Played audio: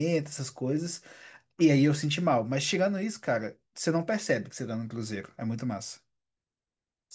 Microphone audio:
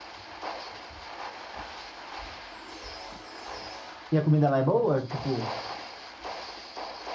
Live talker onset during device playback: 4.1 s

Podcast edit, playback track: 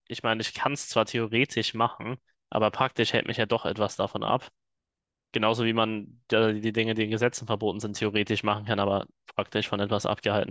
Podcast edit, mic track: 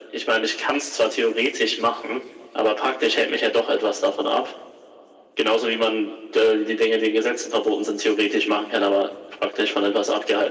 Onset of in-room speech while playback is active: none

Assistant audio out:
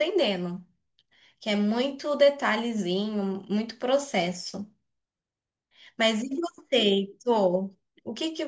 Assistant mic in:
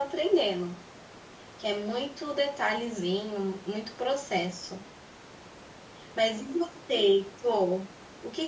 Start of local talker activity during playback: none

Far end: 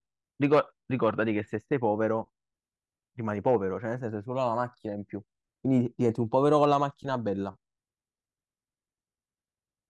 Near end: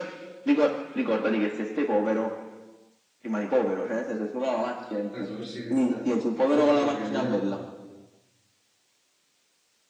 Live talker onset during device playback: 5.1 s

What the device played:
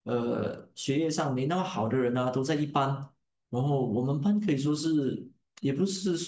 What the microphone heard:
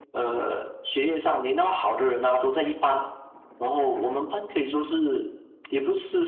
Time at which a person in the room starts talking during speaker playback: none

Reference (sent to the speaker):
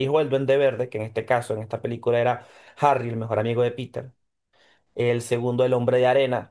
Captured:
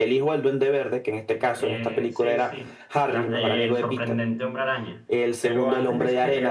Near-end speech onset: 1.3 s

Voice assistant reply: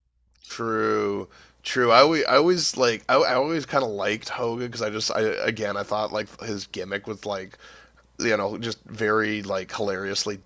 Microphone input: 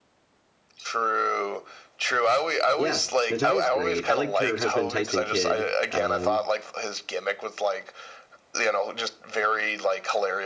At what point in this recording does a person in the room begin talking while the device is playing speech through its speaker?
2.7 s

